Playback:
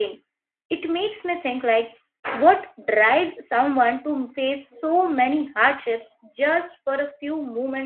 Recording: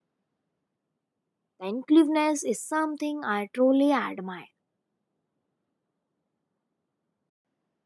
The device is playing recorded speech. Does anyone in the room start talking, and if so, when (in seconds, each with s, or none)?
1.6 s